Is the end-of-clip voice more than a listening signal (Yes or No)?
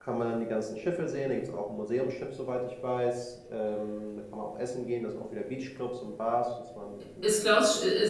Yes